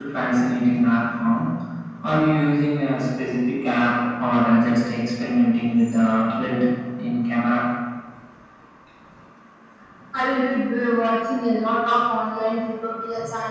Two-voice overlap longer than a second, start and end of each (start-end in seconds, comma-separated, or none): none